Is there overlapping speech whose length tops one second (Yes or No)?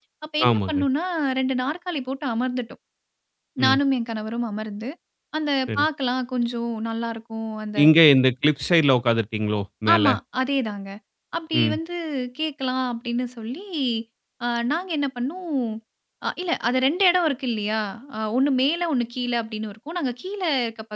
No